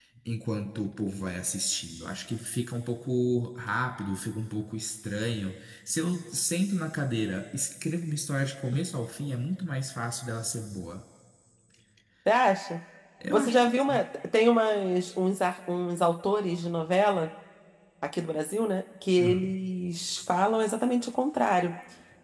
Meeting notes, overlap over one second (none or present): none